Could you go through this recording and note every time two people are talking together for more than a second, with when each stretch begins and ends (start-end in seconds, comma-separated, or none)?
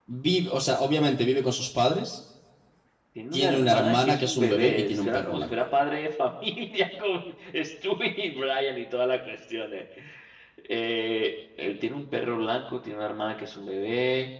3.3-5.5